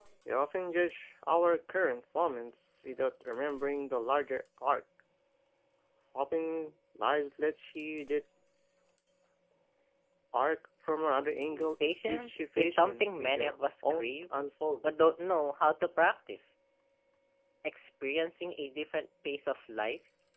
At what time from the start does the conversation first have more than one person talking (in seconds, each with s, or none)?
11.8 s